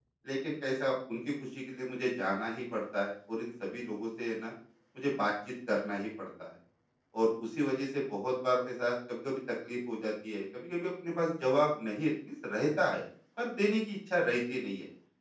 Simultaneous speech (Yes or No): No